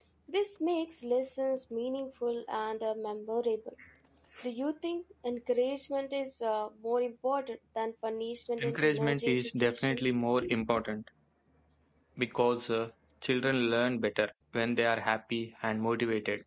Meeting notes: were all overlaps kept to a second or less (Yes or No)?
No